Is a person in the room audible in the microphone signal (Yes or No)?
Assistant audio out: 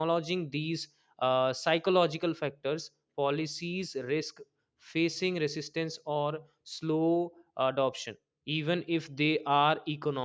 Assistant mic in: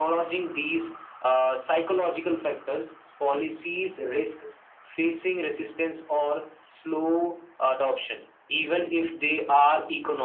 No